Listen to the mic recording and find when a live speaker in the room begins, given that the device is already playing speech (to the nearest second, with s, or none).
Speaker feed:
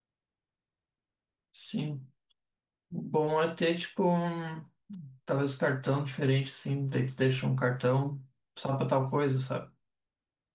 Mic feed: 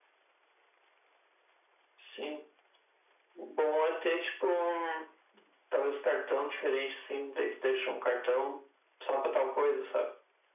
none